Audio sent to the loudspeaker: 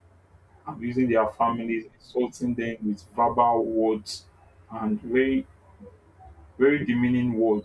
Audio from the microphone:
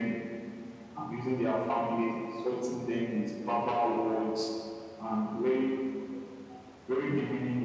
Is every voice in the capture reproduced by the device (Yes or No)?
Yes